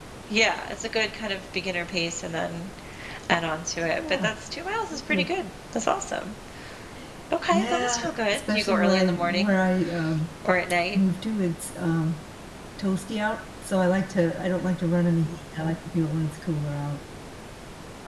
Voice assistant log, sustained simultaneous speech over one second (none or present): present